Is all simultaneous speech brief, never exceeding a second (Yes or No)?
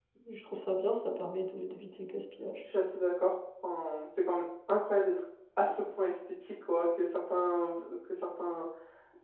Yes